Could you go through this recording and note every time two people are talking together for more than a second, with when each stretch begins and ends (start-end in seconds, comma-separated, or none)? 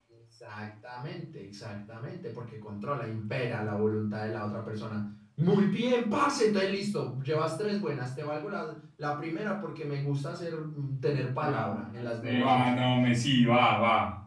11.4-13.0